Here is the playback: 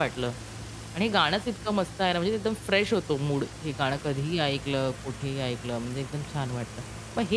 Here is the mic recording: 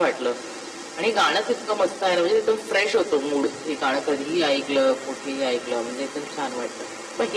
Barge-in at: none

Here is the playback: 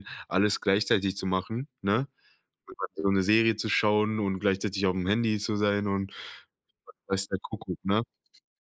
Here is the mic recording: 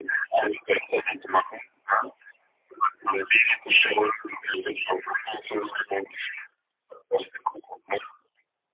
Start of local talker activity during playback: none

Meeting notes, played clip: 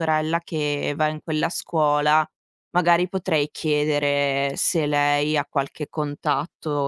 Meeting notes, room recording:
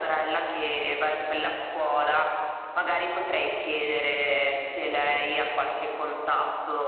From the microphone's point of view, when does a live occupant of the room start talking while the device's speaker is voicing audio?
none

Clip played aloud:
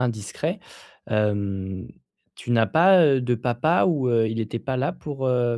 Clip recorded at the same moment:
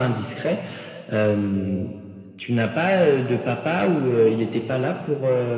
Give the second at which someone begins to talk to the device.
none

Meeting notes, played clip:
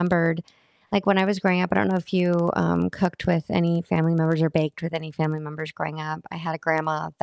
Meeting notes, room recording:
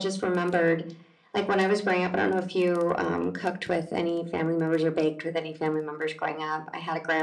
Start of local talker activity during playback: none

